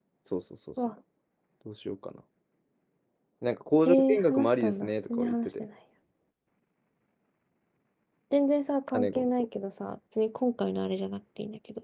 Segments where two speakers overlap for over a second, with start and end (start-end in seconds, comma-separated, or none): 3.8-5.6